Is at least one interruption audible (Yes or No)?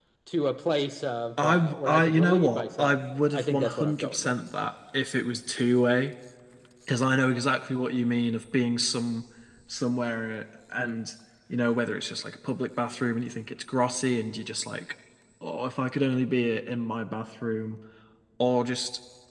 Yes